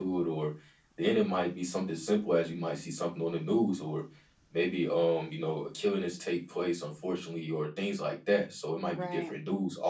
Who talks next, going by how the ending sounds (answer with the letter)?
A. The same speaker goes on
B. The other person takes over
A